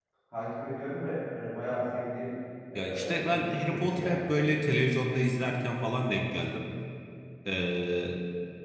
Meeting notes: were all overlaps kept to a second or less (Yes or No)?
No